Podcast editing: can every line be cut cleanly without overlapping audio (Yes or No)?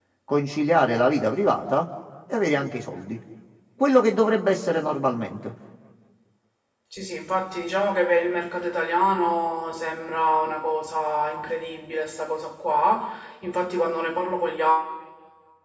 Yes